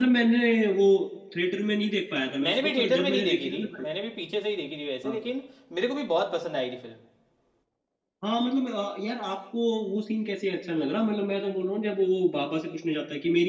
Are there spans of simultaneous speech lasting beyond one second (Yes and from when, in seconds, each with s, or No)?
Yes, from 2.4 s